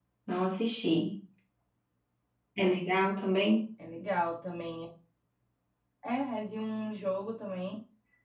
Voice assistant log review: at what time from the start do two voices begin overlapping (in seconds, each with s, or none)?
none